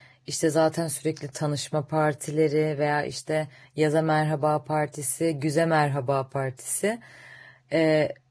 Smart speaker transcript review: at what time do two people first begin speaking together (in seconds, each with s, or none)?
none